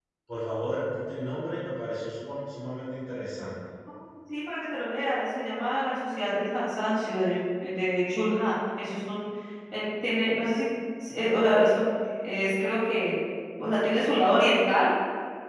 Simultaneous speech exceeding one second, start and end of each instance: none

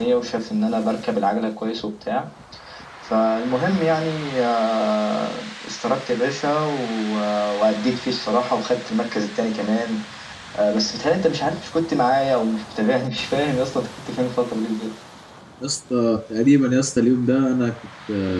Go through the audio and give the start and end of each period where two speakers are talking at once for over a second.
none

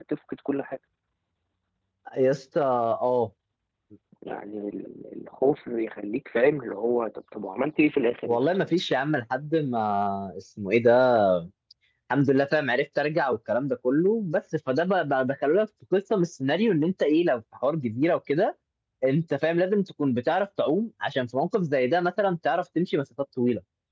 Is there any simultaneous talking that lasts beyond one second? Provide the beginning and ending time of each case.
none

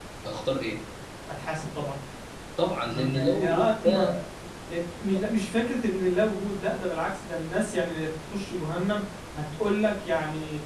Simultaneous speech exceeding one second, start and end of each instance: 2.9-4.1

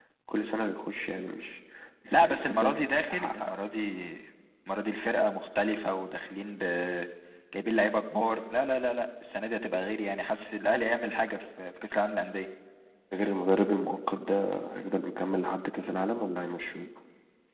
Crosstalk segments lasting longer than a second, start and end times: 2.1-3.5

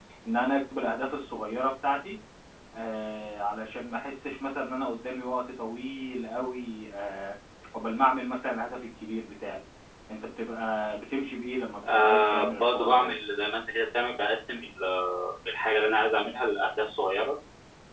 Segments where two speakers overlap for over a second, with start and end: 11.8-13.0

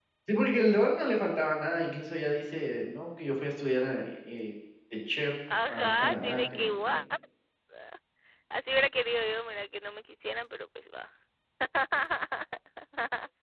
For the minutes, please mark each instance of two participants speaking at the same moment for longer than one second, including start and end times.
5.7-7.0

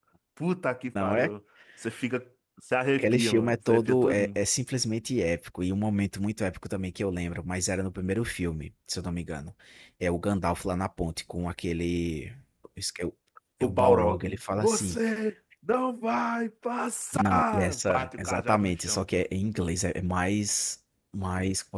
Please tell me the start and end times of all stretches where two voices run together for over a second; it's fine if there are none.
3.0-4.4, 13.6-15.0, 17.1-19.1

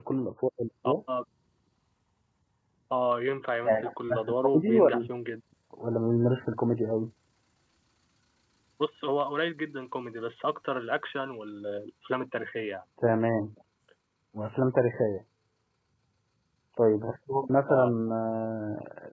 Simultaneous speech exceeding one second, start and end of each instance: 3.7-5.0

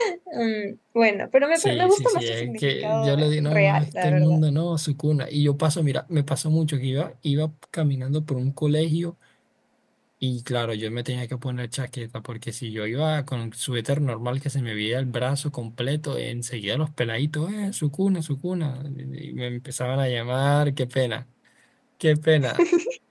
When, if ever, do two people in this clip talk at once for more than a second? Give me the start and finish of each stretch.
1.6-4.4

